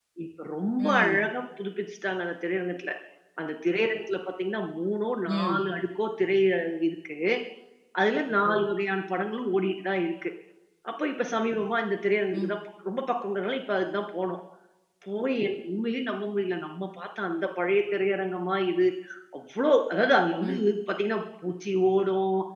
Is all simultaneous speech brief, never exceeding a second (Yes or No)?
Yes